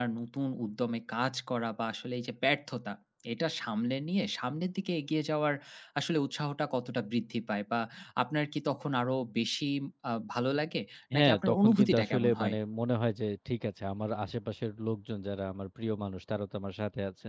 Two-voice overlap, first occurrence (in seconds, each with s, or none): 11.1 s